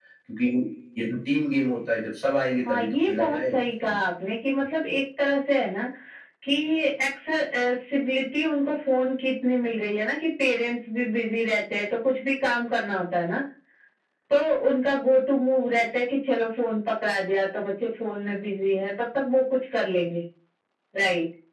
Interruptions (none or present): present